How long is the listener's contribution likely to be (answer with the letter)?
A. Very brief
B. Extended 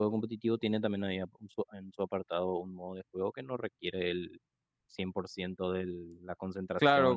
B